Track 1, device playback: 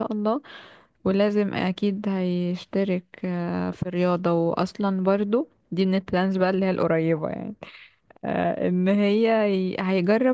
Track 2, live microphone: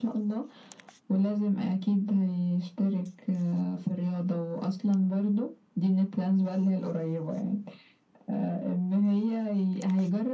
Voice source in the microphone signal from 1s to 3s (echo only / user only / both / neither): echo only